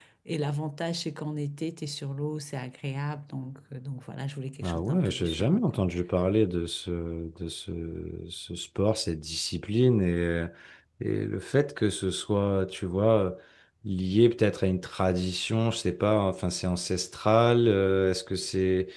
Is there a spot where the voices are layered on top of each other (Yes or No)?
Yes